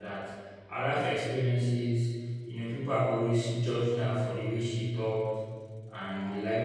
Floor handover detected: No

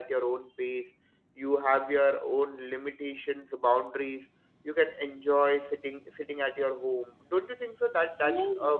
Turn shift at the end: Yes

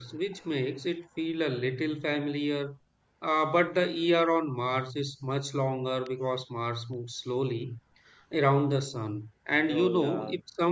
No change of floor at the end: Yes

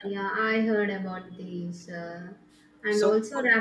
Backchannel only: Yes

